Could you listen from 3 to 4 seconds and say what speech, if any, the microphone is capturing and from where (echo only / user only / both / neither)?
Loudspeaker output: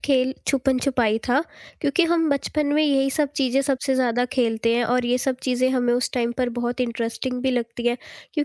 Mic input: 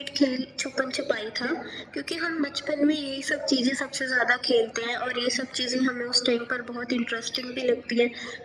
echo only